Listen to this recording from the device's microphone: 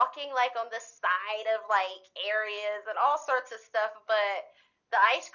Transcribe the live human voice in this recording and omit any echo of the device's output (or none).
none